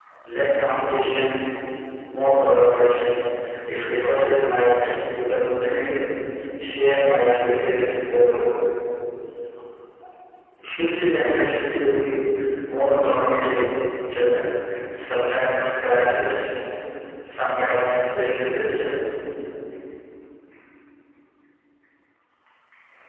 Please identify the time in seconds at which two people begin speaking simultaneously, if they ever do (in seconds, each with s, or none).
none